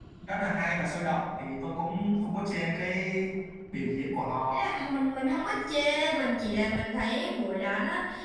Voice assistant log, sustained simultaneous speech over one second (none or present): none